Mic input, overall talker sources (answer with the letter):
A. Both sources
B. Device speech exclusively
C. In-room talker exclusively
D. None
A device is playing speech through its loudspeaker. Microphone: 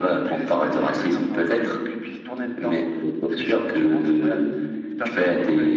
B